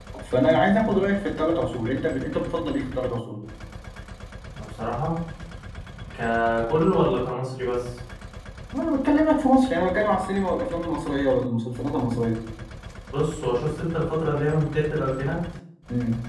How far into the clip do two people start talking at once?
none

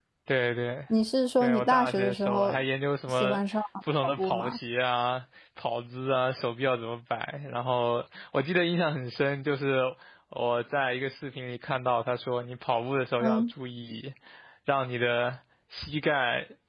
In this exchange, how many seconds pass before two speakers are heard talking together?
1.4 s

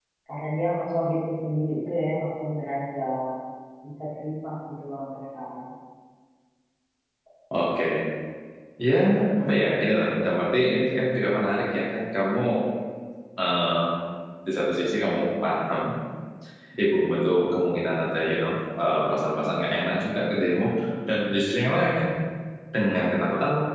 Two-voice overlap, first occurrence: none

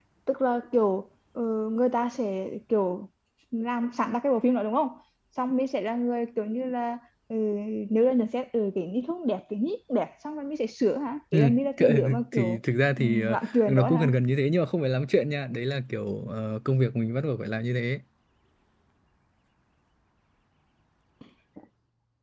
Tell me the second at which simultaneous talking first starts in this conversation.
11.3 s

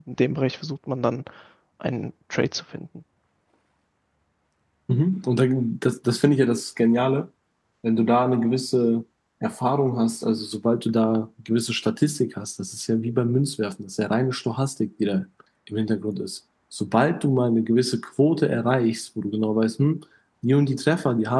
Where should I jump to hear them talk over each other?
none

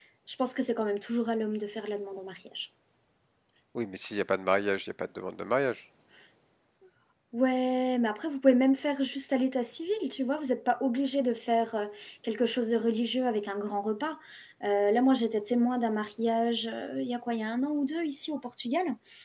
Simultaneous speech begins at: none

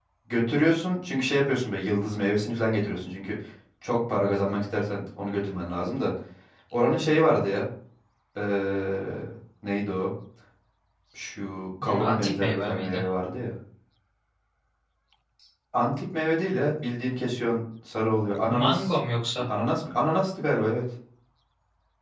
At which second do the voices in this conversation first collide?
11.8 s

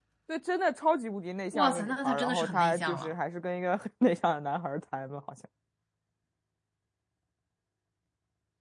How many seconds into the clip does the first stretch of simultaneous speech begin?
1.5 s

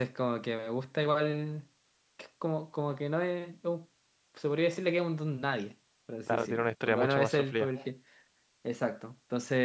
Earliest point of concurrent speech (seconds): 6.3 s

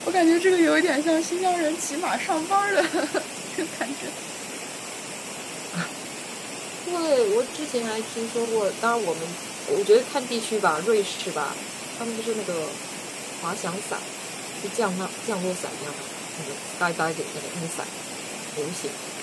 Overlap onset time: none

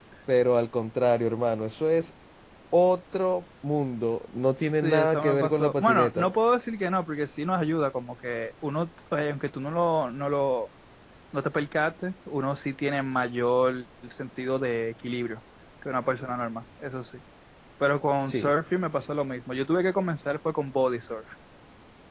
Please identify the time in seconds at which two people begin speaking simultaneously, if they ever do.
4.8 s

